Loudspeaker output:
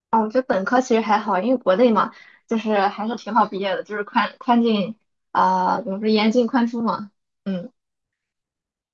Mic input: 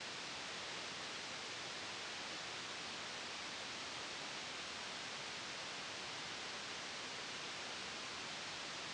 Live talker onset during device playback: none

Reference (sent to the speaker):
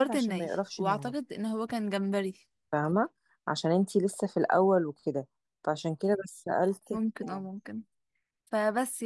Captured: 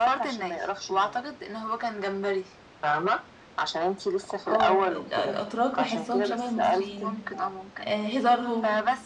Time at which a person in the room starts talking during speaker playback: 4.5 s

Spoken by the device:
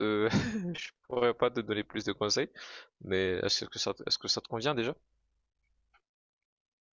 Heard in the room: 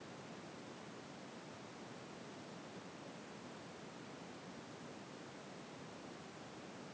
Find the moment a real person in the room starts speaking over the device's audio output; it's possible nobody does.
none

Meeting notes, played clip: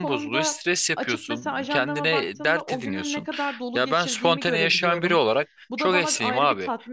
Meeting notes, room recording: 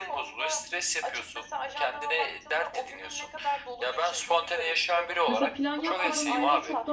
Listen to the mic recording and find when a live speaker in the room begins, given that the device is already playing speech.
5.3 s

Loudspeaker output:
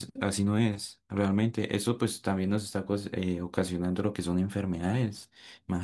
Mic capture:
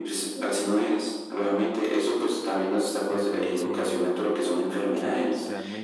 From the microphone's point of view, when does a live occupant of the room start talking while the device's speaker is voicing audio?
3.1 s

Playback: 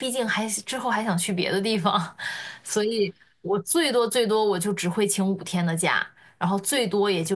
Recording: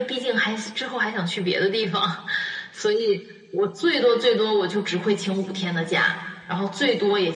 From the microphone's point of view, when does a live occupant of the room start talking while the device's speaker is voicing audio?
none

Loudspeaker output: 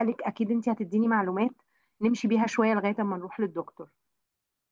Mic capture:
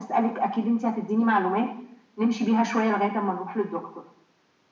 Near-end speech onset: none

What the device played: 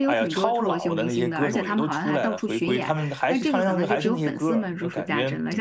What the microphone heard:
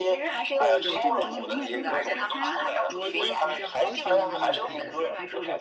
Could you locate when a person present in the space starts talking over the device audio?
0.6 s

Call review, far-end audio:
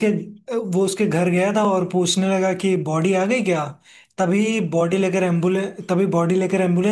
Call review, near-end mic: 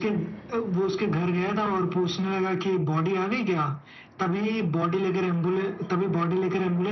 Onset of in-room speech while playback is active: none

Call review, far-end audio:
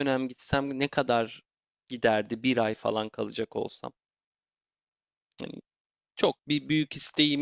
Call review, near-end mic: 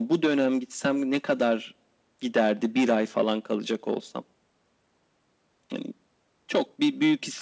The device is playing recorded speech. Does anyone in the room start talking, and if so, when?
none

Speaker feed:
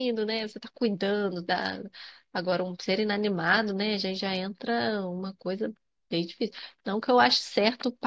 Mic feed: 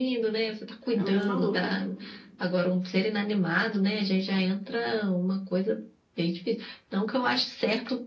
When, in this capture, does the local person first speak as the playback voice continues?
0.9 s

